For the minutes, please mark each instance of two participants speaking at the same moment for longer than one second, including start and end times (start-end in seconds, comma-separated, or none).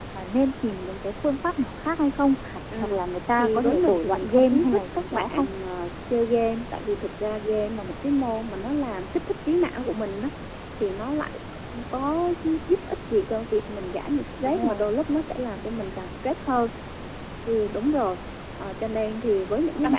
3.3-5.5